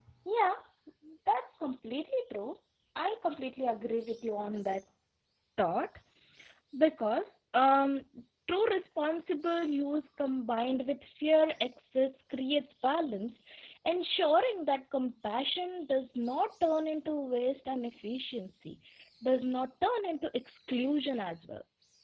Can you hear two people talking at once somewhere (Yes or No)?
No